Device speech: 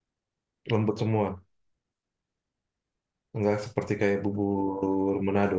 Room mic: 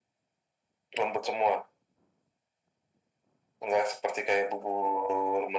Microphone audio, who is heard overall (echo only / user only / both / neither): echo only